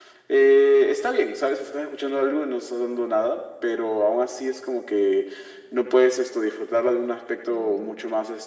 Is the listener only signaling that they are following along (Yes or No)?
Yes